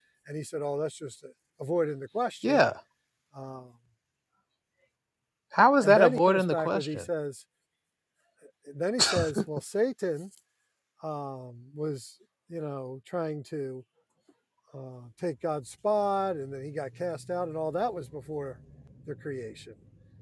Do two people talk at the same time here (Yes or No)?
Yes